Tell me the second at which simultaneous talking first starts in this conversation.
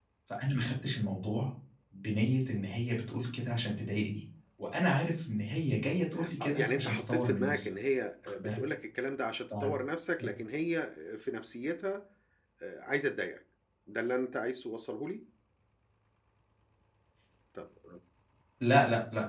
6.4 s

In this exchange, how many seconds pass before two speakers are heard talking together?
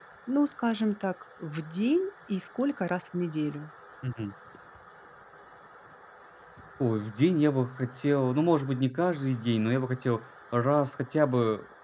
none

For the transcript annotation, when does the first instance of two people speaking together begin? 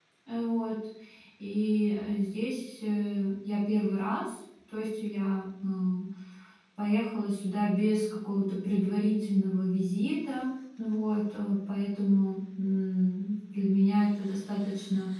none

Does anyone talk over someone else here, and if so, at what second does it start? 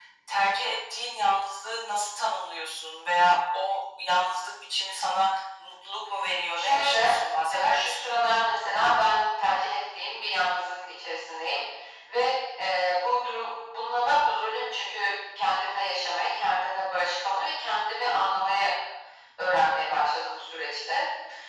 6.5 s

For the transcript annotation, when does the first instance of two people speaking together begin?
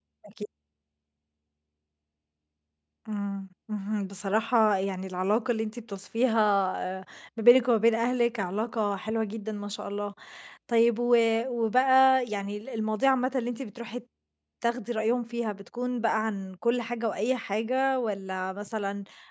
none

